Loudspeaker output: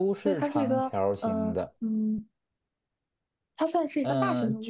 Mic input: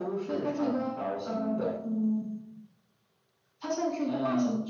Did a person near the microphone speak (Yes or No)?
Yes